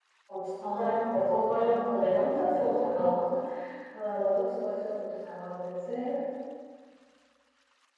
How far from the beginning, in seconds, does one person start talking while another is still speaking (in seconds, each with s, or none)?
0.7 s